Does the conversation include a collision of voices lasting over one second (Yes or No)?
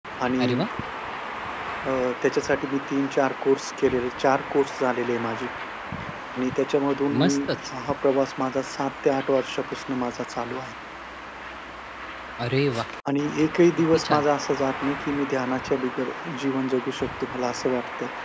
No